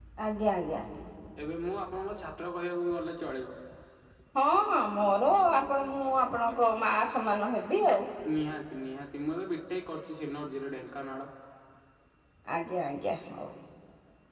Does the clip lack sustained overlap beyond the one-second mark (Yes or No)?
Yes